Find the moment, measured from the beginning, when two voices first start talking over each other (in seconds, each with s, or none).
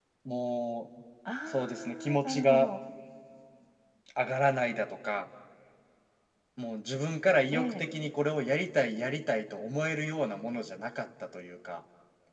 1.5 s